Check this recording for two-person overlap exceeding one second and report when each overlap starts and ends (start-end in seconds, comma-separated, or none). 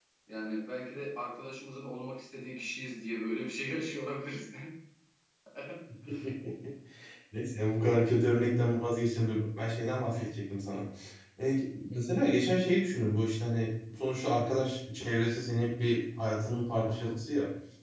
none